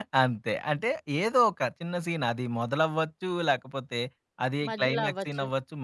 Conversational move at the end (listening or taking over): listening